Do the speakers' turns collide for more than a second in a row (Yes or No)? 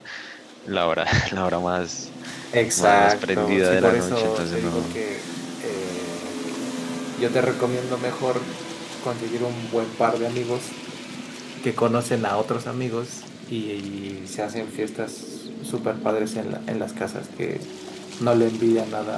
Yes